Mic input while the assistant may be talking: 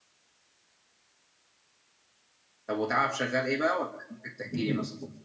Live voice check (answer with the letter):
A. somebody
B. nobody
A